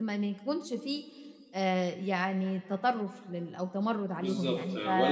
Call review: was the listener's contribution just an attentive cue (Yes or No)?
No